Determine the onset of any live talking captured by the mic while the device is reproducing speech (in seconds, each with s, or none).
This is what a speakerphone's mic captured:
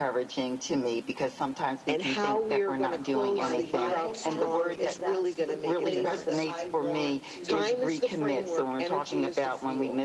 3.3 s